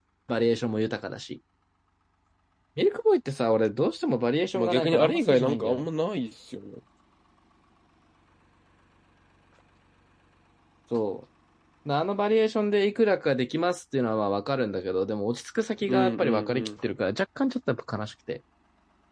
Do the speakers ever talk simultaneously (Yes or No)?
Yes